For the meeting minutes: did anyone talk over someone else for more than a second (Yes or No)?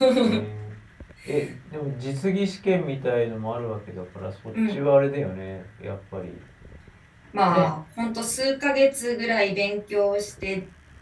No